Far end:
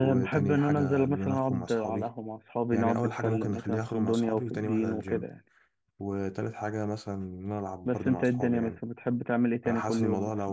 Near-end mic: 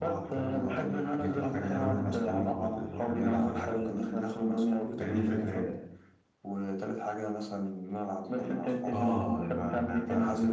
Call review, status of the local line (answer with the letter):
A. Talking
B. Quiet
A